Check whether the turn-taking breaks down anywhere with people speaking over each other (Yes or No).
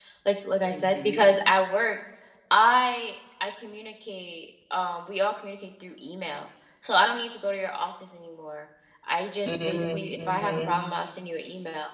Yes